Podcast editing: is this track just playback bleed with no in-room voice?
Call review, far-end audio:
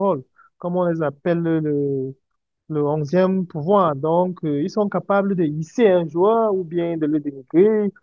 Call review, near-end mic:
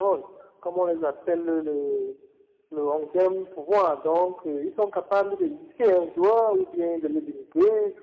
Yes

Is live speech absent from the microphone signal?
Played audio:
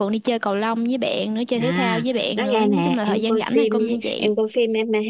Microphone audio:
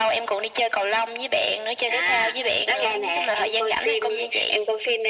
Yes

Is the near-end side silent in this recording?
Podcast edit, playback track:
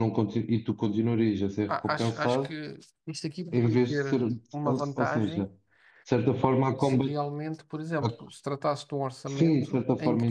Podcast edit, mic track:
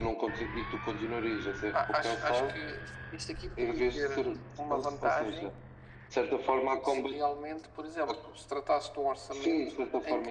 Yes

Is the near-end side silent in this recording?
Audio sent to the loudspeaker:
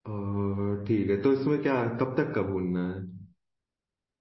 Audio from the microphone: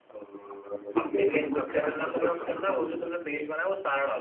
No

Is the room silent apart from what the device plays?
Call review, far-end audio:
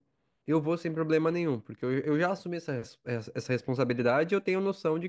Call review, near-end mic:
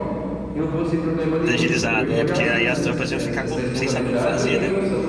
No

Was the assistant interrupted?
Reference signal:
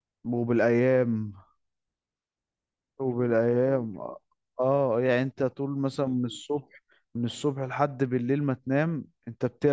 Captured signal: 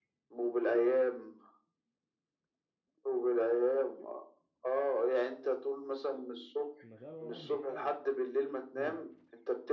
Yes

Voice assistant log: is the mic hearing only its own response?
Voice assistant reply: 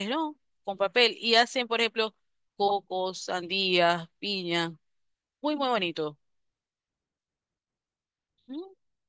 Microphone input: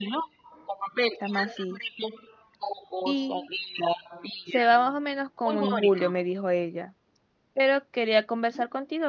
No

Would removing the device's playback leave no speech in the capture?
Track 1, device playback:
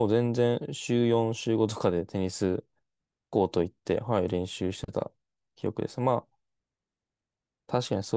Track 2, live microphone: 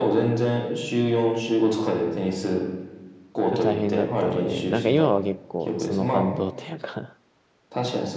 No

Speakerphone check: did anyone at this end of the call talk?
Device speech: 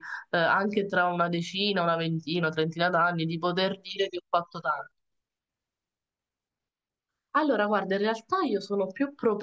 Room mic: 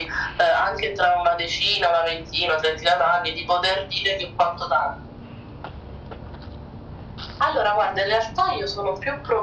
No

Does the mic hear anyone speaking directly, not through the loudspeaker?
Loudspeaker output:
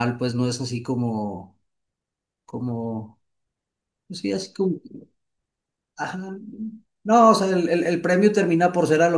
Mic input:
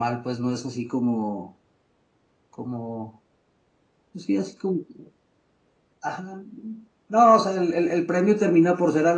No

